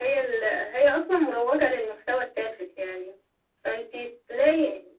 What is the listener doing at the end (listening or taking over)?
listening